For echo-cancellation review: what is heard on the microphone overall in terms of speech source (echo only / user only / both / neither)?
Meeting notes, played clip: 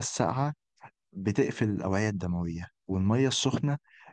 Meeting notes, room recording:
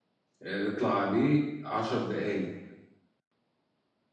user only